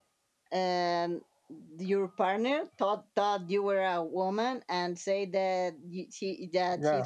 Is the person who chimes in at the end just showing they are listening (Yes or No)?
Yes